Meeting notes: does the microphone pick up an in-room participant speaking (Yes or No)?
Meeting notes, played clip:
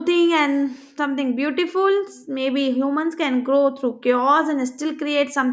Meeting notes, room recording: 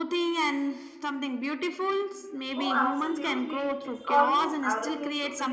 Yes